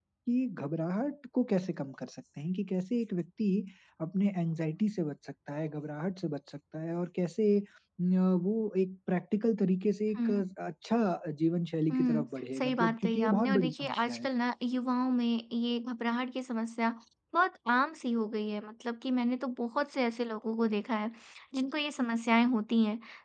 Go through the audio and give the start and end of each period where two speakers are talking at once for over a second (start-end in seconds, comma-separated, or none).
12.6-14.3